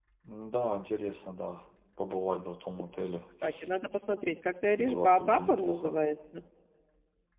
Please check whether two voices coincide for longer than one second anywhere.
Yes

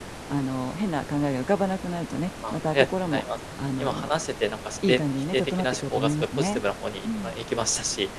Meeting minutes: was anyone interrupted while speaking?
Yes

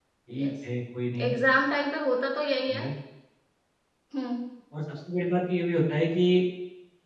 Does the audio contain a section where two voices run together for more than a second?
No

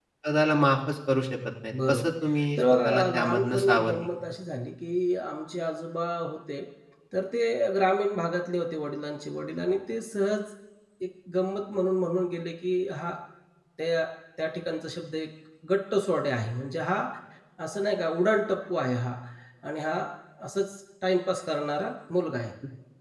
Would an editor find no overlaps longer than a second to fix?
No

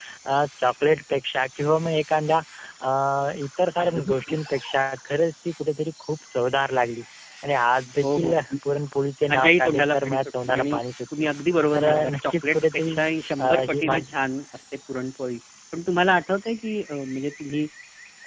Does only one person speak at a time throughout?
No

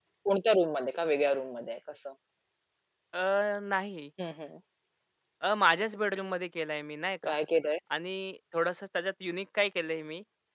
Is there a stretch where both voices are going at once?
No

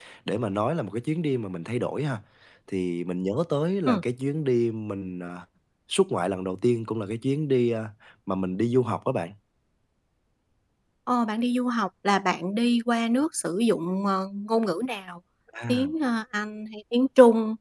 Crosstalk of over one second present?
No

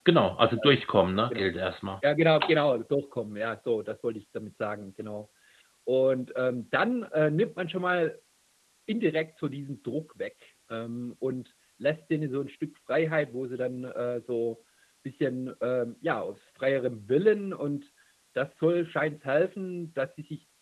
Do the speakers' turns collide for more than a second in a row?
No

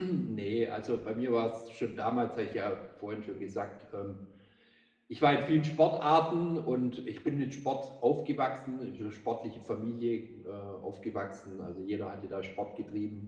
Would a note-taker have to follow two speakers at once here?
No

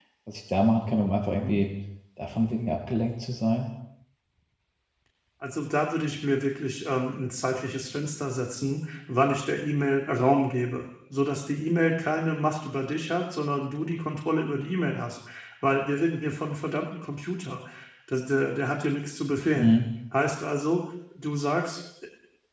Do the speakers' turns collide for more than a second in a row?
No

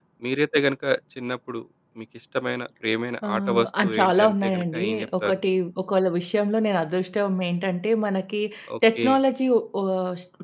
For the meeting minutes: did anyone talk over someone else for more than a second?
Yes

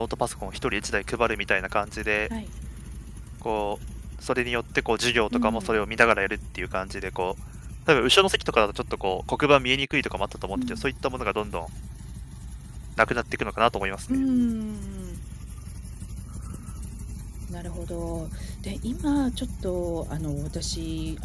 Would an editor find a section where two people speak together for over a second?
No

